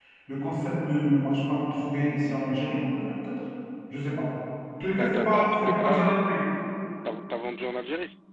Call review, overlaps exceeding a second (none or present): present